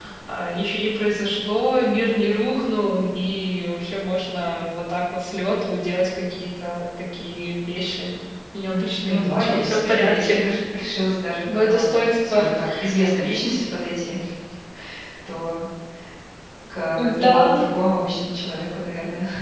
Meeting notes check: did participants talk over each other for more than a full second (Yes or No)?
Yes